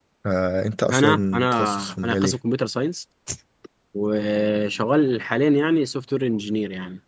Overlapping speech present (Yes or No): Yes